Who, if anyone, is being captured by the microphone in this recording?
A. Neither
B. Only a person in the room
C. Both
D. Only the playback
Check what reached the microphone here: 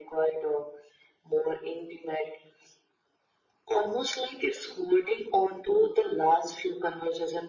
D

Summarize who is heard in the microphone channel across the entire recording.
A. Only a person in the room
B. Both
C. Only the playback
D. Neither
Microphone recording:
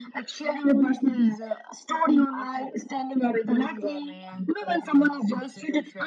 C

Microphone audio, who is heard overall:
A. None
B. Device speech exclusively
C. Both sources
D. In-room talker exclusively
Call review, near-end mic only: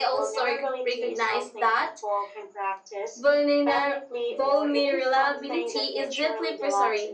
B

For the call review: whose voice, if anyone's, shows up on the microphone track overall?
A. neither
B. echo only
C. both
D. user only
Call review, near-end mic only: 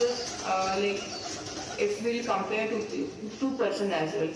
B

